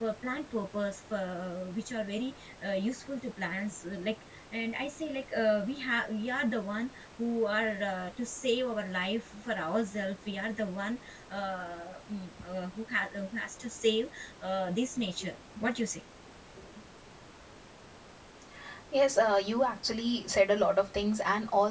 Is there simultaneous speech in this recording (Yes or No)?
No